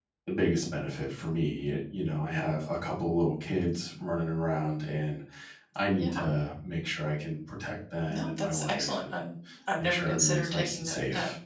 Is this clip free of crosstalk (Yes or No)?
No